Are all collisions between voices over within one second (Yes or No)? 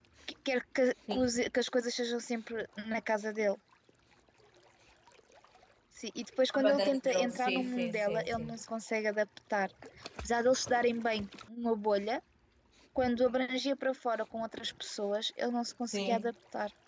No